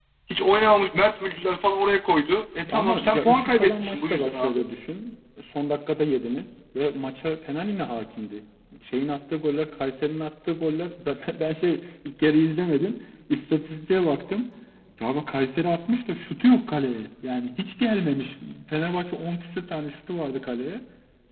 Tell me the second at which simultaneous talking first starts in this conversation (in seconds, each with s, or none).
2.7 s